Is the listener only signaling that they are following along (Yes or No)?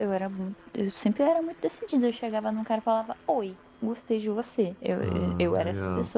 No